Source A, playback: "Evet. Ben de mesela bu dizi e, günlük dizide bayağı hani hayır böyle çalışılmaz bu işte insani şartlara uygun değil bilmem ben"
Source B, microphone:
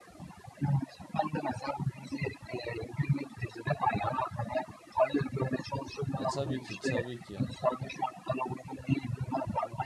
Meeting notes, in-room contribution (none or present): present